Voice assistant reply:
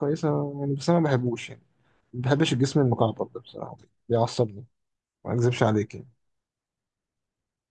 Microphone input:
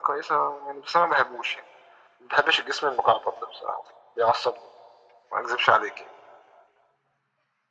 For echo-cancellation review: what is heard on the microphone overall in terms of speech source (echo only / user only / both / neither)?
echo only